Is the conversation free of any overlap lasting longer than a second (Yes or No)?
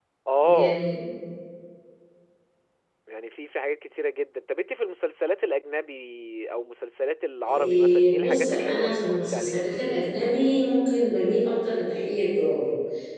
No